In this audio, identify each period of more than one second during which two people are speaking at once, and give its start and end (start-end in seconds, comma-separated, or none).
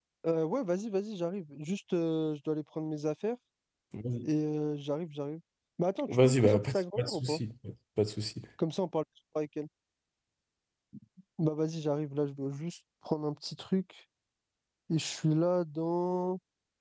6.1-7.4